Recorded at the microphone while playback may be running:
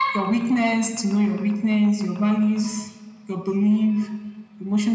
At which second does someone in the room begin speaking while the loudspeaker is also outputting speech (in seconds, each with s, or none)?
none